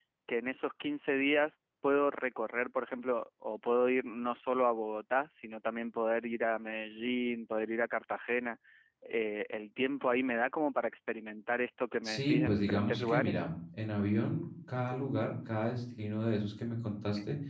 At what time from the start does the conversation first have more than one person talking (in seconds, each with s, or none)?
12.0 s